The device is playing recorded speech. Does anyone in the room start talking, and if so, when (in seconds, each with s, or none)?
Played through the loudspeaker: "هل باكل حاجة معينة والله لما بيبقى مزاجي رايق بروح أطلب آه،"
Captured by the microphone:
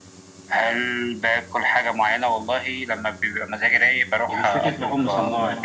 4.3 s